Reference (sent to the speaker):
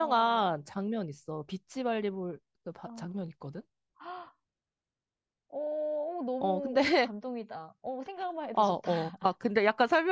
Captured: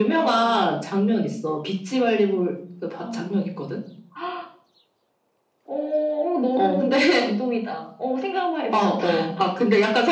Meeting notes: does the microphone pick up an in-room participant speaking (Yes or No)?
No